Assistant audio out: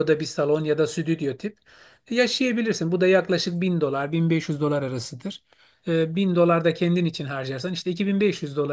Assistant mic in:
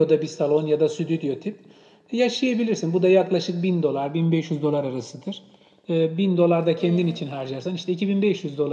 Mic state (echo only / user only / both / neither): both